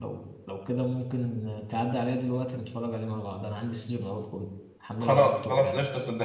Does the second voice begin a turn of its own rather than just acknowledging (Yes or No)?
Yes